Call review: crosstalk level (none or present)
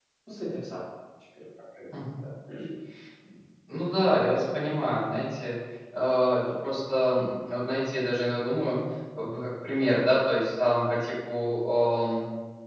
none